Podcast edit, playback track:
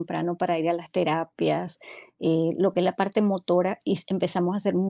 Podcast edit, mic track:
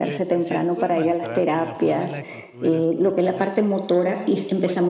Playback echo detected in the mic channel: Yes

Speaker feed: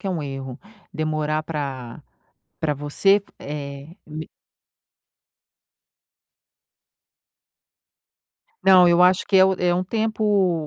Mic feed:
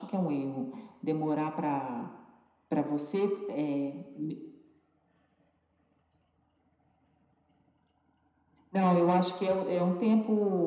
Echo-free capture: No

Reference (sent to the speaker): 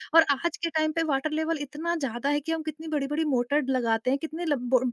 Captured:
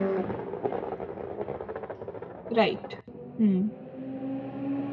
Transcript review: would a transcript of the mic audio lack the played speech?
Yes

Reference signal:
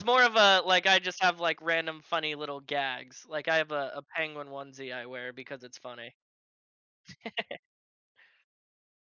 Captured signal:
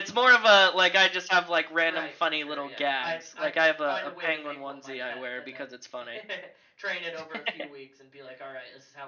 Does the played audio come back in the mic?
Yes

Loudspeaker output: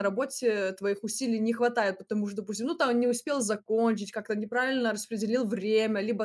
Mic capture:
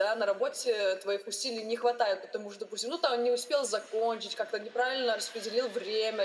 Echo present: Yes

